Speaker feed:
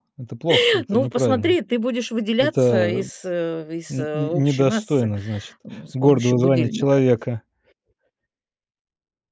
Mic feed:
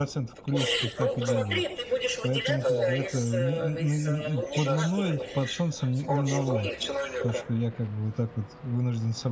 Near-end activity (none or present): present